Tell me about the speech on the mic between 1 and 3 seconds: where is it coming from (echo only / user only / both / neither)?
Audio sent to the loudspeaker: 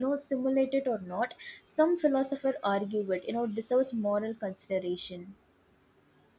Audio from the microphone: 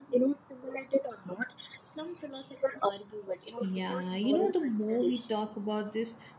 echo only